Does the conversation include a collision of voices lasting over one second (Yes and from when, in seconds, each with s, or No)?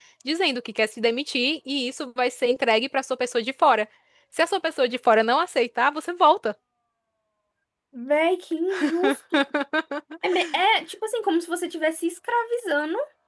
No